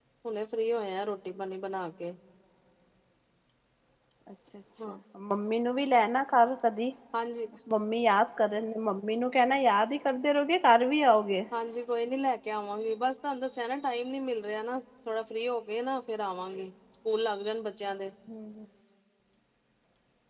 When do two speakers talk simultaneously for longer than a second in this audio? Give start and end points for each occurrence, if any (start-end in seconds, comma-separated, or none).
none